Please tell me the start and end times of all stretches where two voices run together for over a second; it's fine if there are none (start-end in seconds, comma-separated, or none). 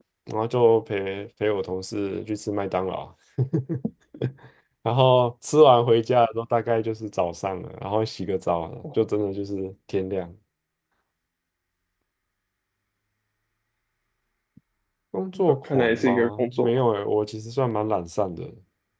15.5-16.7